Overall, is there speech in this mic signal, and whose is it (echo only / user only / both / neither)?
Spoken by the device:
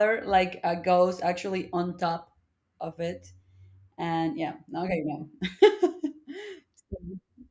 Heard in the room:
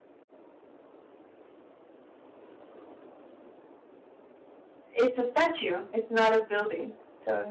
user only